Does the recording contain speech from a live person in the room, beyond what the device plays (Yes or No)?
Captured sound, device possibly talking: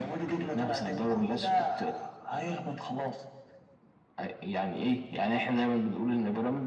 No